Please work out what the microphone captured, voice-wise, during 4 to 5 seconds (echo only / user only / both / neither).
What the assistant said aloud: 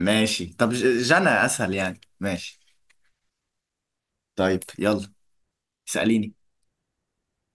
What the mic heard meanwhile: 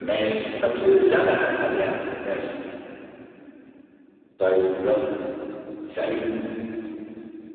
echo only